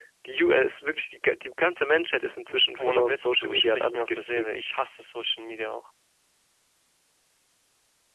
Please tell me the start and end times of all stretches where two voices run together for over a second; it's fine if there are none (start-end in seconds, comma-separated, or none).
2.8-4.5